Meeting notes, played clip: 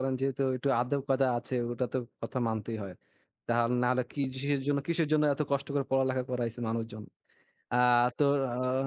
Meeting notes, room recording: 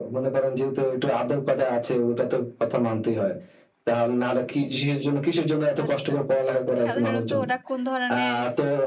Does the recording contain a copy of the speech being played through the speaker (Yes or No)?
Yes